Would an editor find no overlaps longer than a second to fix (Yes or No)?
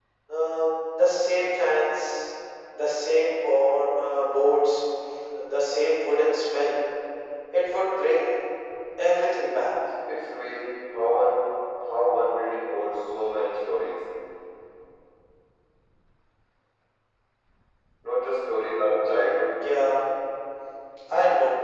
Yes